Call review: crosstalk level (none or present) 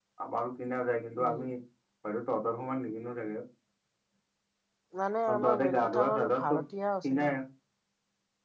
present